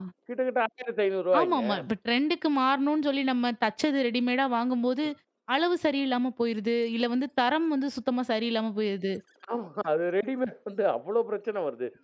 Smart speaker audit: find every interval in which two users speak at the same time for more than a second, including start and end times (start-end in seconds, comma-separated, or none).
none